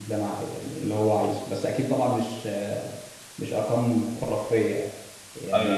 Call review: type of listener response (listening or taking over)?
listening